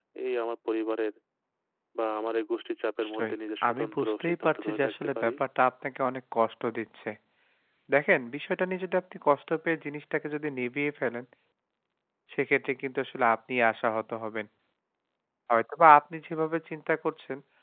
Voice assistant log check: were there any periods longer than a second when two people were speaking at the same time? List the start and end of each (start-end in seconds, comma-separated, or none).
3.7-5.3